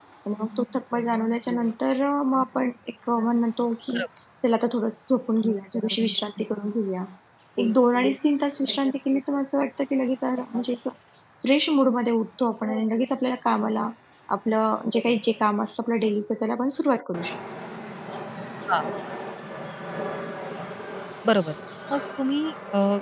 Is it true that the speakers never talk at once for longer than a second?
Yes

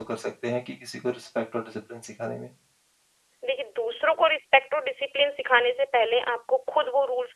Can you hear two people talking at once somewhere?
No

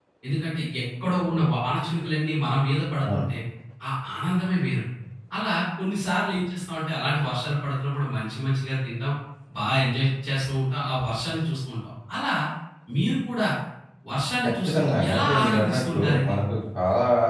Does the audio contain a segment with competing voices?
Yes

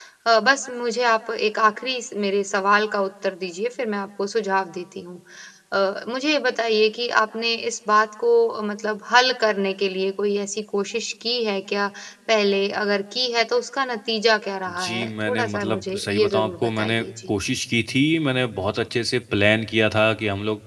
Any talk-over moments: Yes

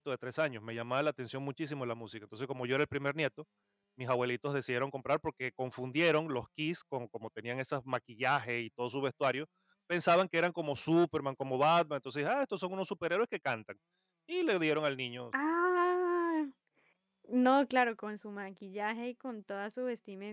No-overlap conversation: Yes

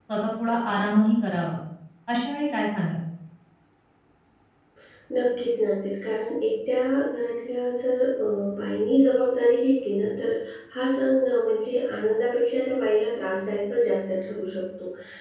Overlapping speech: No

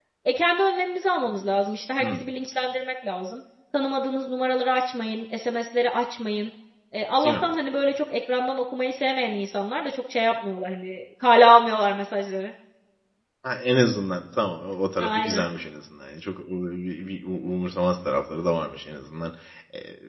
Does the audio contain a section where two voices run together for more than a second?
No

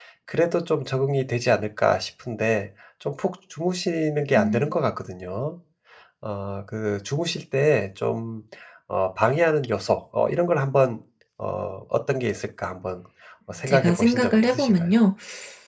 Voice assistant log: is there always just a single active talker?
No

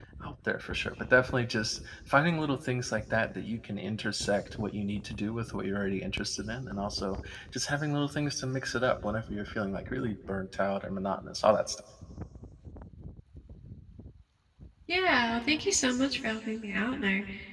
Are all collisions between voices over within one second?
Yes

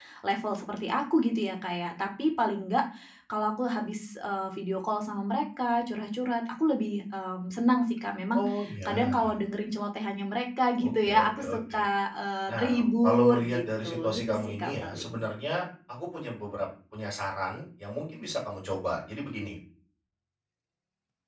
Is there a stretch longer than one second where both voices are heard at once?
Yes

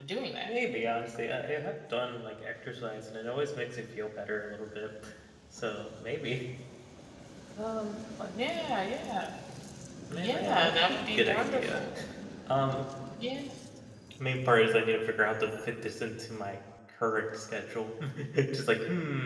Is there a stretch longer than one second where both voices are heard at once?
Yes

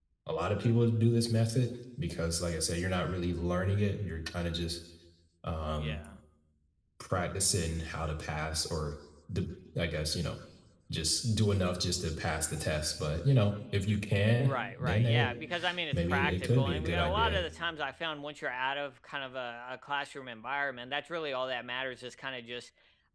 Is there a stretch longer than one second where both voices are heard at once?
Yes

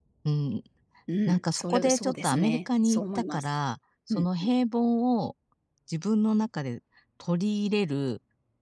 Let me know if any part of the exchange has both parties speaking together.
Yes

